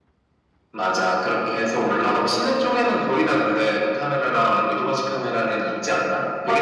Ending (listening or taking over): taking over